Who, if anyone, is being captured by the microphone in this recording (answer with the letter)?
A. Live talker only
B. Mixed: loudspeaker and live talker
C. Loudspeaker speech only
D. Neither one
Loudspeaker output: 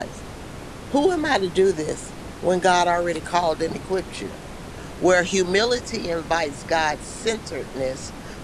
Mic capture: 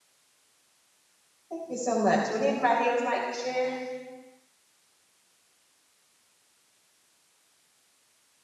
A